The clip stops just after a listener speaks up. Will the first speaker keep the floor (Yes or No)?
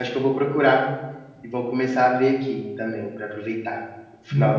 No